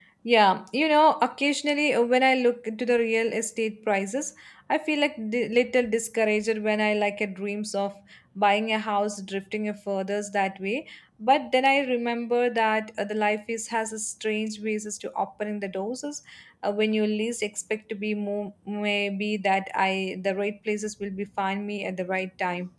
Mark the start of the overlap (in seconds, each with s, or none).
none